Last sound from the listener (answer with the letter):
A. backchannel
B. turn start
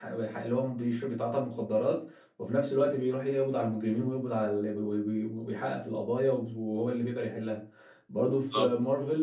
A